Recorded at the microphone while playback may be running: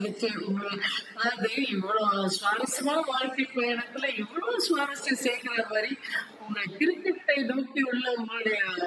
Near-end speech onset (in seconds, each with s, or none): none